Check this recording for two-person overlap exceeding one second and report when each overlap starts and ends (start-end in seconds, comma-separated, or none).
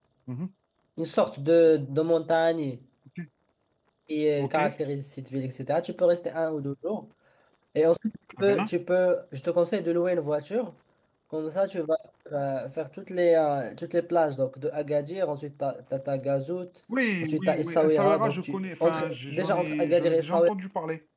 17.2-20.5